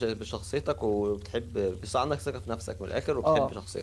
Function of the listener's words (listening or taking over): taking over